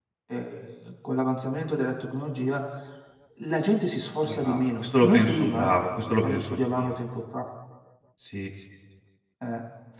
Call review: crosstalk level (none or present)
present